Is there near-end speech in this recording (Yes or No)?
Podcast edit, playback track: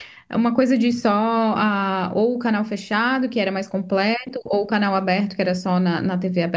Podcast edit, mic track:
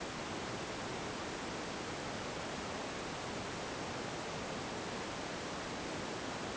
No